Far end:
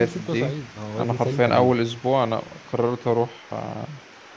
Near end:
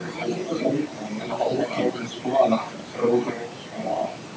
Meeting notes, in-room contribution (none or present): none